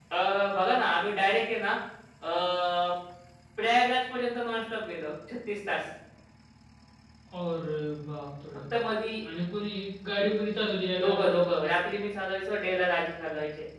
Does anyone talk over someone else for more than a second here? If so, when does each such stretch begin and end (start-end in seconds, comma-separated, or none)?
none